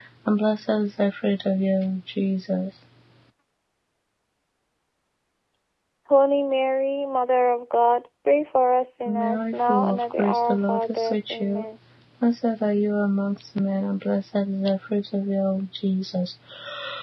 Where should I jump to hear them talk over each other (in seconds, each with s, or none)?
9.1 s